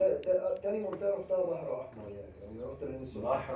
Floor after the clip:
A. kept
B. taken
B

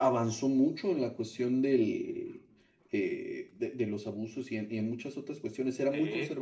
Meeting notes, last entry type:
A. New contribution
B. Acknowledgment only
B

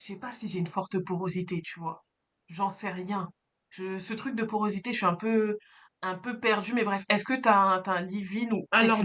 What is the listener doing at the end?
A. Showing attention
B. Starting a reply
B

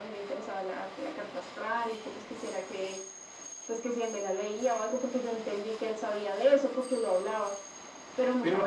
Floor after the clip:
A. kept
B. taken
B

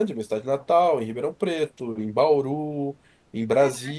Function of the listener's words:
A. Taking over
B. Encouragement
B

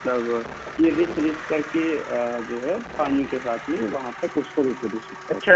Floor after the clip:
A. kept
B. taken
B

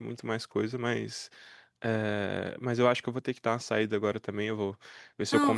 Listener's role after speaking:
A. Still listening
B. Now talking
A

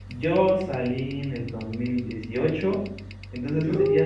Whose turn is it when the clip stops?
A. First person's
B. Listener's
A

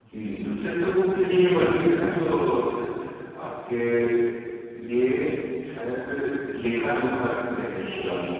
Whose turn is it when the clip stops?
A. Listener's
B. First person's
A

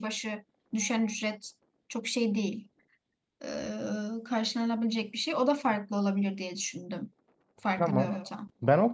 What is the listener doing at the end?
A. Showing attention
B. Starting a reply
B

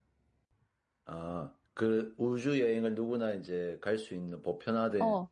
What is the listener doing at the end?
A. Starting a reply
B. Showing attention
A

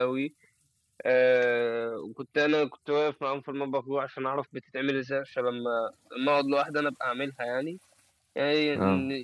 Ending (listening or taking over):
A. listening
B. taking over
A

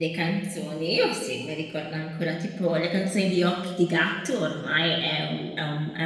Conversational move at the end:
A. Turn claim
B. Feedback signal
B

